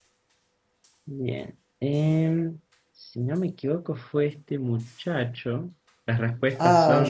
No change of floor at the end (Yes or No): Yes